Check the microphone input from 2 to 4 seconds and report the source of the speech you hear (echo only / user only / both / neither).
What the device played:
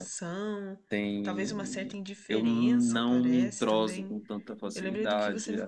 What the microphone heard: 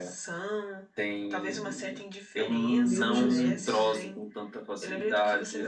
both